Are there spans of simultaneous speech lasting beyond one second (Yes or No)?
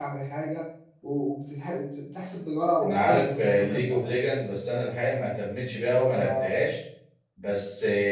Yes